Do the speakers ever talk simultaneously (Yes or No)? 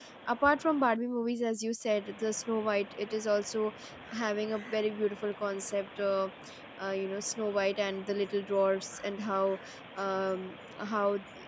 No